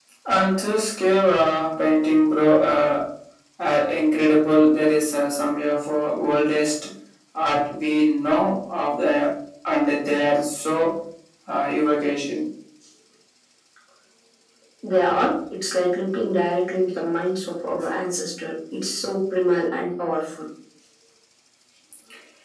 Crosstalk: none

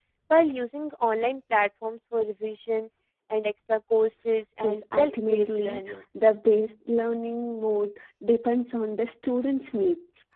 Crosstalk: present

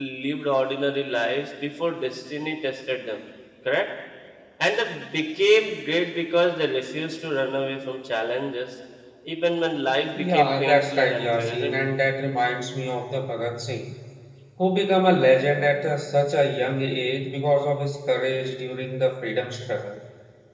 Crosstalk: present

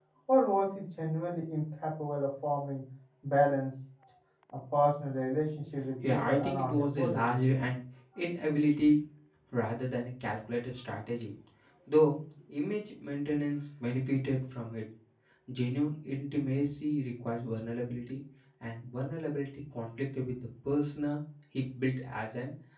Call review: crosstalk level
present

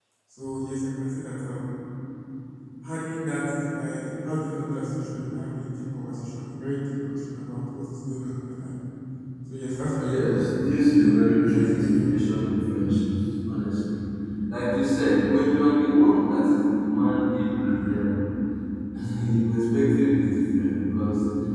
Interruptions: present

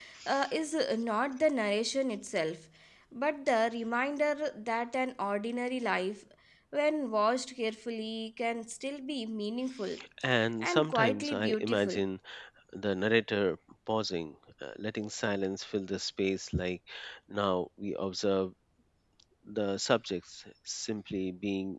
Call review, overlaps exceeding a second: present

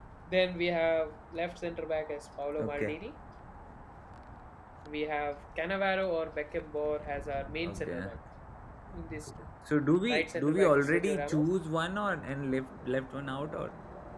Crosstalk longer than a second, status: present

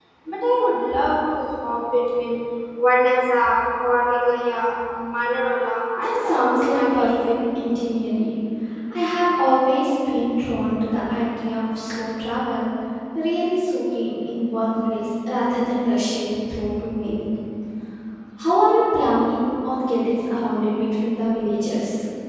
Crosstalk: present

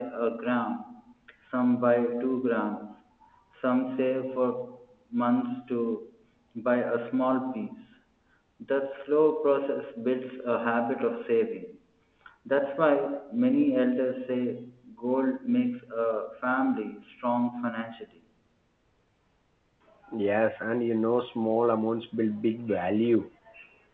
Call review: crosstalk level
none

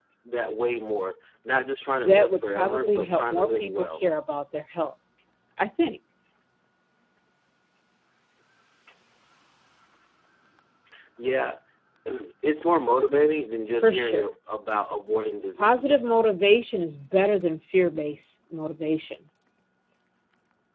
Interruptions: present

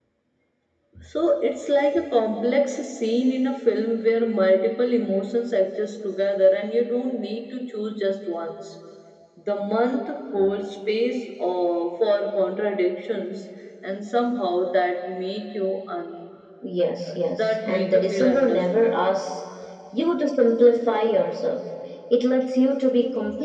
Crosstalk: present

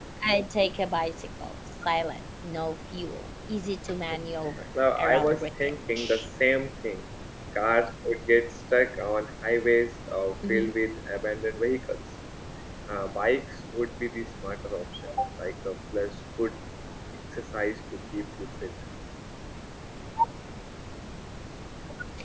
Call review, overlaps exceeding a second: present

